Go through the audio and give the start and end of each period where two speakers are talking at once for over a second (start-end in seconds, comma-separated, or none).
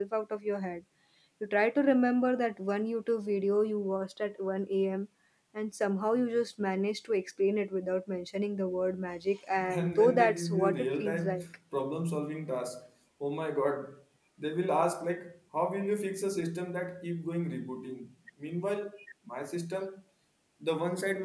9.7-11.4